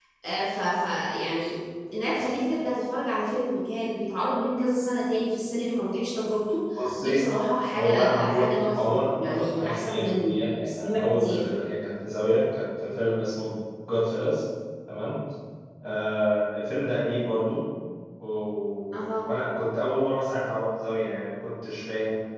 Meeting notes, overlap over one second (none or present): present